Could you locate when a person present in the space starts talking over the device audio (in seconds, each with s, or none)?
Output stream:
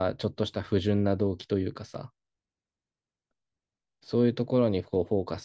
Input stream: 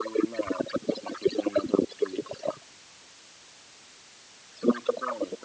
none